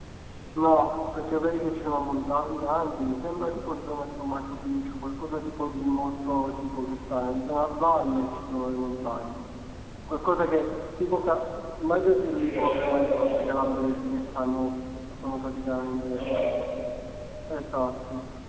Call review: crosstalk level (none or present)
present